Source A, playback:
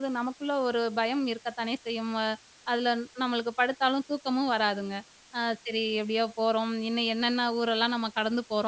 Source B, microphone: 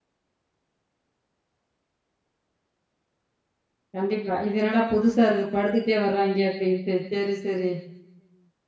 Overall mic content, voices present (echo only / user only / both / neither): user only